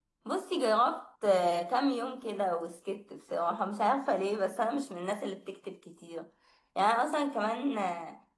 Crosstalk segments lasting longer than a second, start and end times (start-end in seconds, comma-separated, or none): none